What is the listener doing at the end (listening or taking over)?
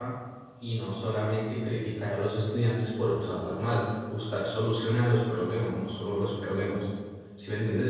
taking over